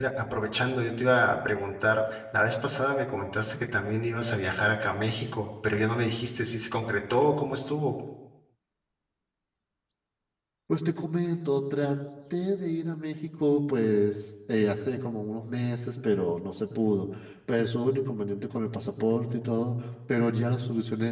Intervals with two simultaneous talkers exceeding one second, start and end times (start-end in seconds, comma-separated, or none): none